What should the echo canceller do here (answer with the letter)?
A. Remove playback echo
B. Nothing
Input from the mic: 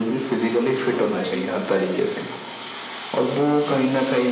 A